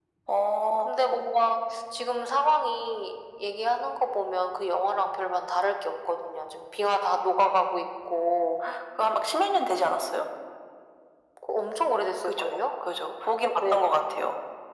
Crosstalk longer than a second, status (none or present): none